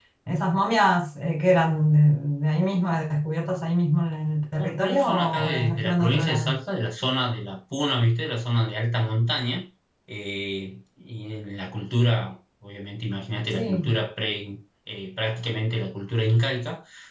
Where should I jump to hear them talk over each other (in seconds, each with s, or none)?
4.5 s